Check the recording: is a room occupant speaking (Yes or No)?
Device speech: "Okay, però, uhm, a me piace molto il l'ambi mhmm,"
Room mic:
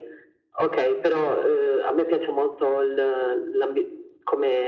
No